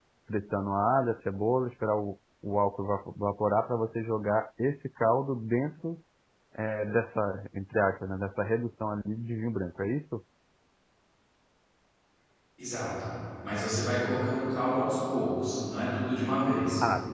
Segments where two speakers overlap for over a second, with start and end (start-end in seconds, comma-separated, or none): none